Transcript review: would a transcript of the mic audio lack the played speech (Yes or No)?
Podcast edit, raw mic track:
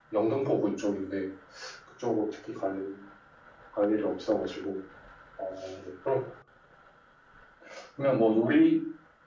No